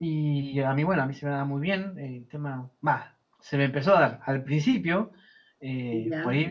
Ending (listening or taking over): listening